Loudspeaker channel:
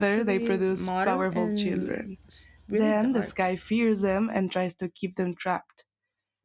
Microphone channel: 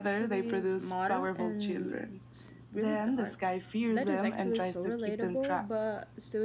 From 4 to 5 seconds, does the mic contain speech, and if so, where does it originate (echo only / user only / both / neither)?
both